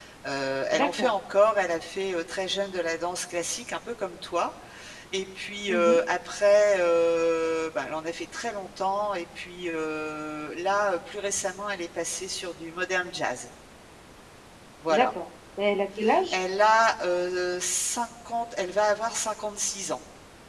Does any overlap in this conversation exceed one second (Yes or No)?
No